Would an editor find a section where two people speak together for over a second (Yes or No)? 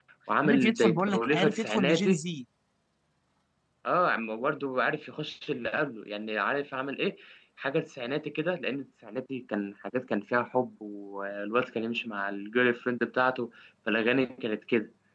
Yes